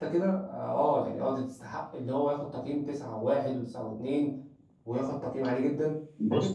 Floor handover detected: Yes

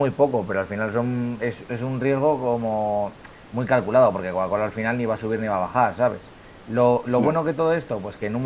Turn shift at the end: No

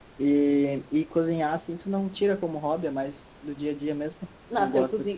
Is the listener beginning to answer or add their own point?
Yes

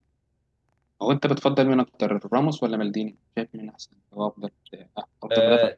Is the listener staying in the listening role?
No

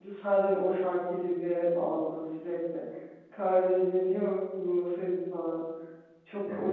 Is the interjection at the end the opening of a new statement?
Yes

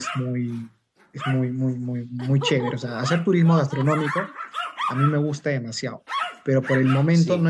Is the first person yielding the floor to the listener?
No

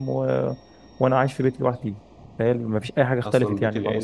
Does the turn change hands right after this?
Yes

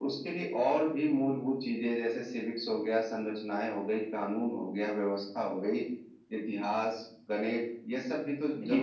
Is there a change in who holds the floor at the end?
Yes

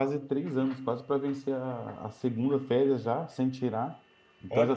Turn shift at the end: No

